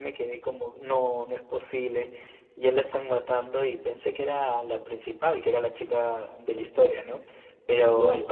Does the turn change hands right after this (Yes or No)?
No